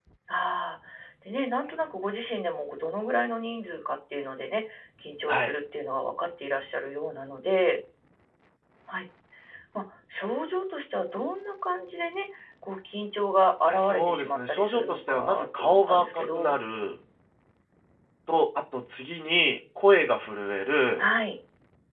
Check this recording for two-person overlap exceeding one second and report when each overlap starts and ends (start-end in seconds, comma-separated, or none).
13.7-16.5